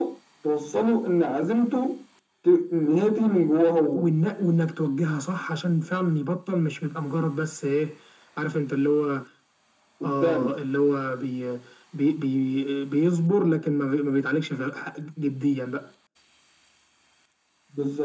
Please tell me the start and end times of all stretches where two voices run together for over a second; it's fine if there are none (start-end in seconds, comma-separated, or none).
none